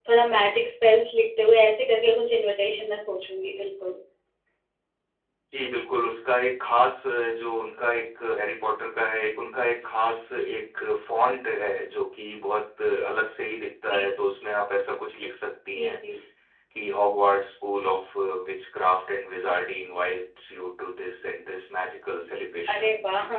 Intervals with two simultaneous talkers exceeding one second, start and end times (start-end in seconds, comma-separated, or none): none